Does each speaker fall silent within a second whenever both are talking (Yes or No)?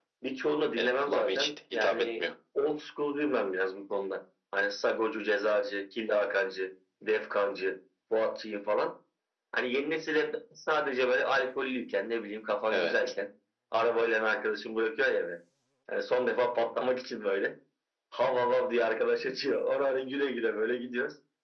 No